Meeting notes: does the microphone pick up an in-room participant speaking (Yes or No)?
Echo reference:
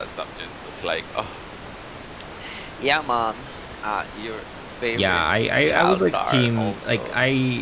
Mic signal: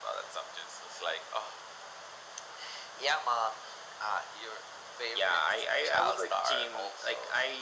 No